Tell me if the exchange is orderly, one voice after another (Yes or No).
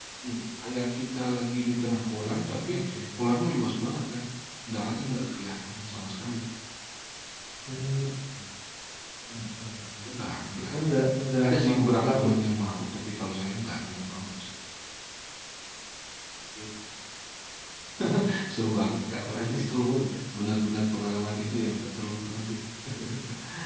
No